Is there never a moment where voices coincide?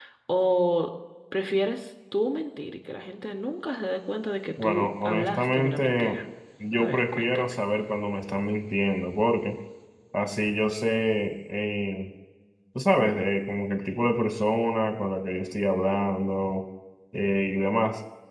No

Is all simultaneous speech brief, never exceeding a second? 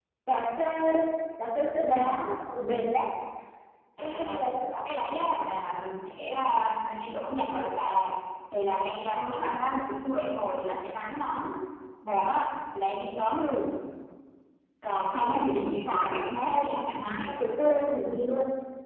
No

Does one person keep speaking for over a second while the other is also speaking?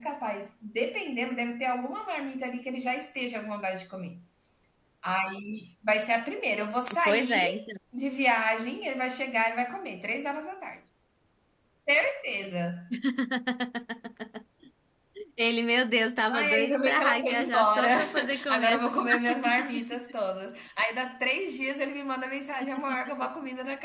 Yes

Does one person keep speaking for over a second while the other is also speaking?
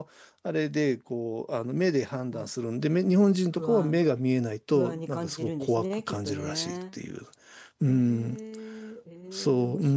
Yes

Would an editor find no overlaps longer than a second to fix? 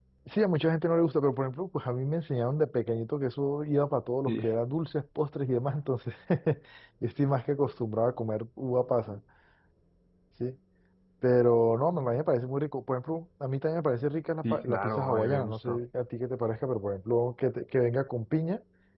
No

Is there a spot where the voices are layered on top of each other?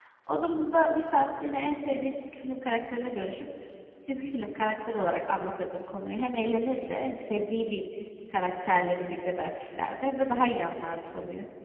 No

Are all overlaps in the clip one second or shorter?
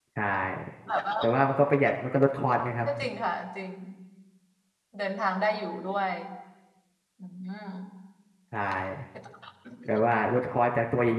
Yes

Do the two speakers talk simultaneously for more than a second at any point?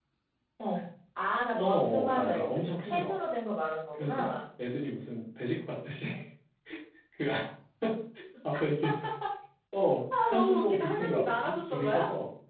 Yes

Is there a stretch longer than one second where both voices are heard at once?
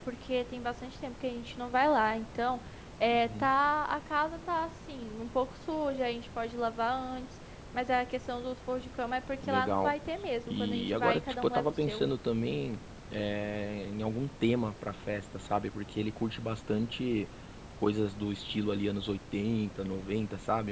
Yes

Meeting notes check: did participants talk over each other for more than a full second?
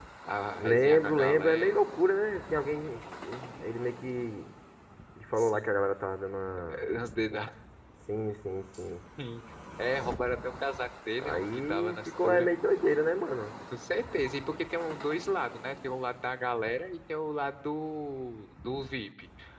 Yes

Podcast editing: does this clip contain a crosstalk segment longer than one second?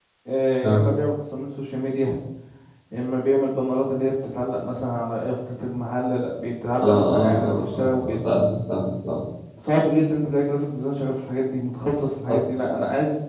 Yes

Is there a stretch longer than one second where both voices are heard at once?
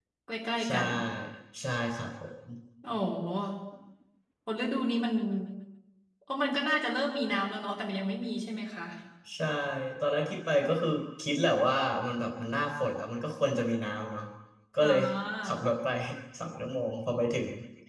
No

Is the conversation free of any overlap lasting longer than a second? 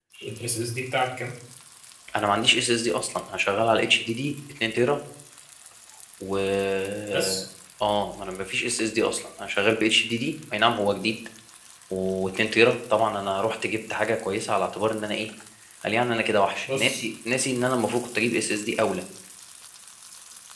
Yes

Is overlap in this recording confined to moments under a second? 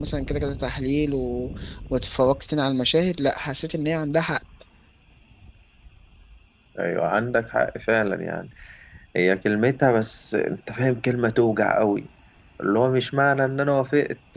Yes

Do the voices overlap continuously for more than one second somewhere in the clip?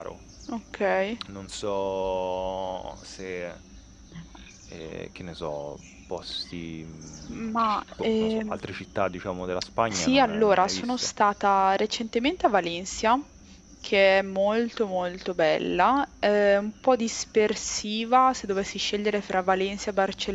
Yes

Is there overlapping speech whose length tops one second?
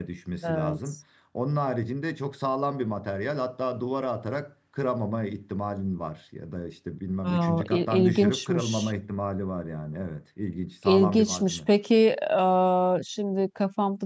Yes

